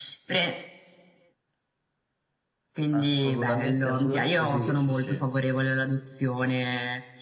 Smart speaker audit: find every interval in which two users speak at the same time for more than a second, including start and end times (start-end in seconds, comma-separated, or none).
2.9-5.2